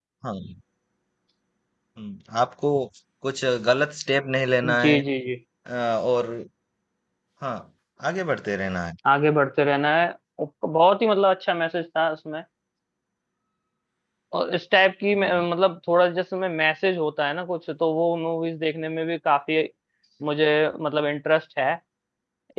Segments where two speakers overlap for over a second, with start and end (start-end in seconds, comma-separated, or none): none